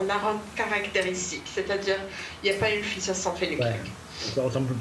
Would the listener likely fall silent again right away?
No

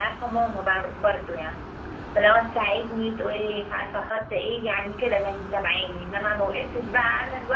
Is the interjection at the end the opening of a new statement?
No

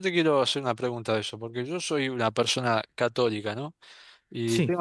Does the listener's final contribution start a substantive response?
No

